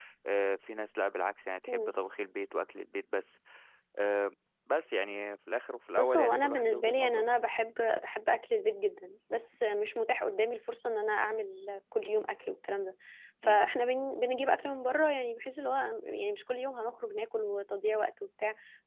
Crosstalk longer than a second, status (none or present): present